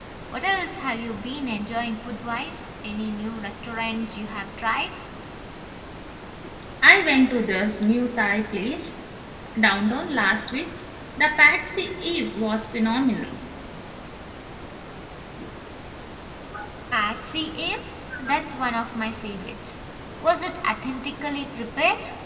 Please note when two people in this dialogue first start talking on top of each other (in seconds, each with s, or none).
none